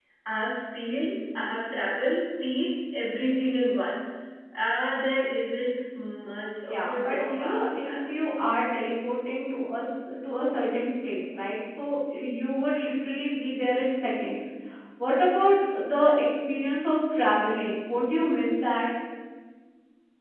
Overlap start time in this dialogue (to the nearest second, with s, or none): 7 s